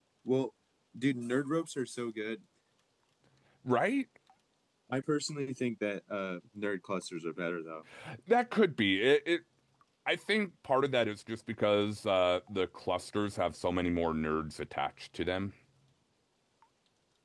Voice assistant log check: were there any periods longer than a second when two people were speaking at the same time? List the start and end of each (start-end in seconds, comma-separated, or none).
none